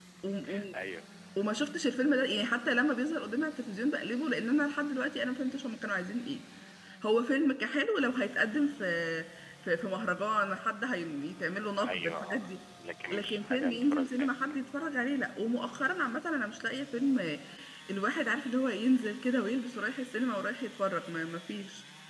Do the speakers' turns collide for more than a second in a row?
Yes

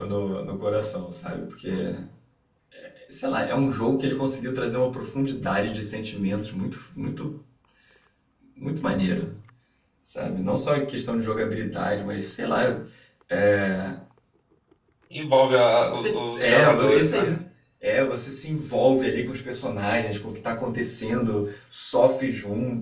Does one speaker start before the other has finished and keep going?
Yes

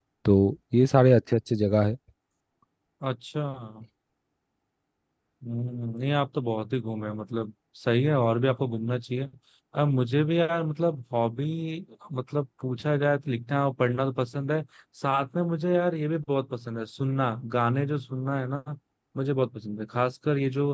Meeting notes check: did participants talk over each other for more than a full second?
No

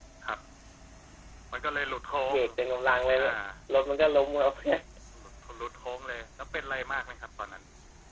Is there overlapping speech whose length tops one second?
No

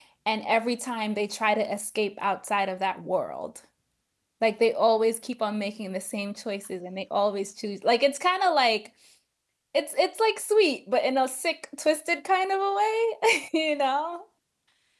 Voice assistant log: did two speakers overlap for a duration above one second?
No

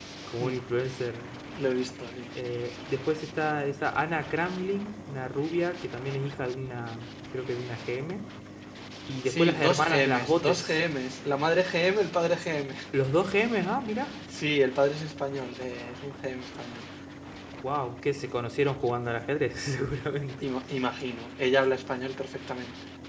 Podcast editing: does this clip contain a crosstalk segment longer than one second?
Yes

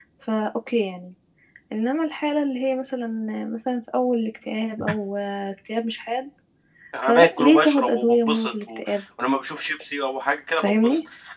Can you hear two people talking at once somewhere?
Yes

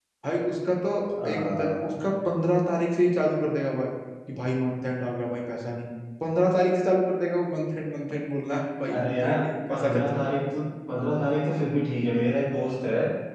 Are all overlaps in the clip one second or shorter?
No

